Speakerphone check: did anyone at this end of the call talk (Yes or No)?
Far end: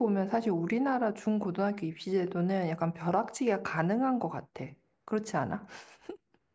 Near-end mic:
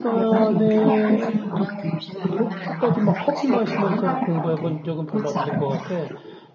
Yes